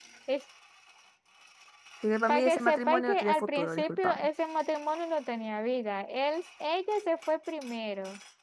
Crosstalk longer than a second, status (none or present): present